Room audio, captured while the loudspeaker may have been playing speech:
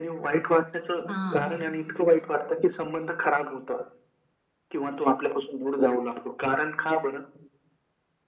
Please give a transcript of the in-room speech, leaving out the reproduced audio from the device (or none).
हां,